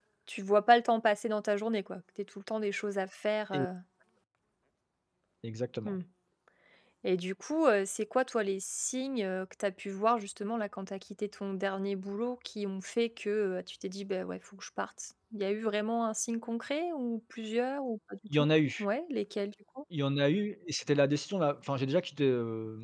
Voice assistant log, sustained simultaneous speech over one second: none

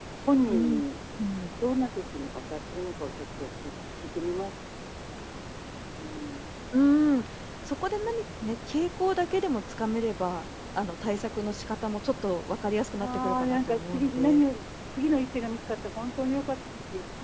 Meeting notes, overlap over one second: present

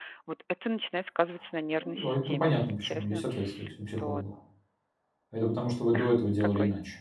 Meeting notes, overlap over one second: present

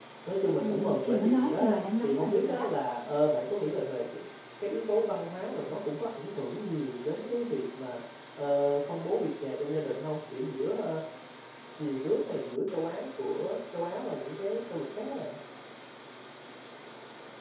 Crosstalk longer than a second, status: present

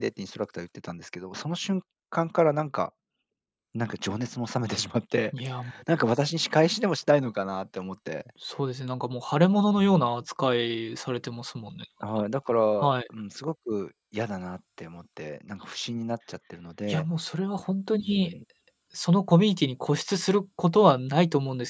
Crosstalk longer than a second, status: none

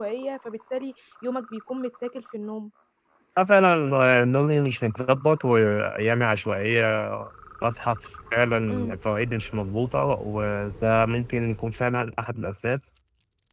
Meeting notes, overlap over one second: none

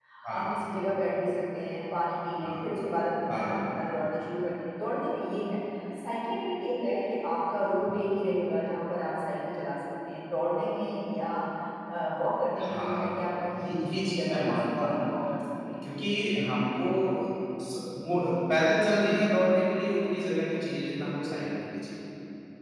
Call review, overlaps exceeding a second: present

